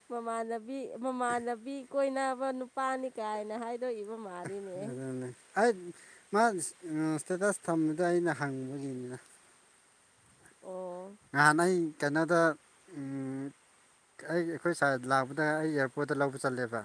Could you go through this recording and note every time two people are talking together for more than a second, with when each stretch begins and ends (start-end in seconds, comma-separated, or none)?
none